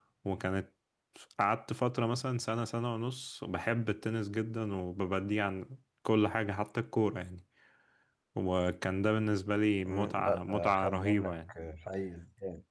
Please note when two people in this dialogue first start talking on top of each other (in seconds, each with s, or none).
9.8 s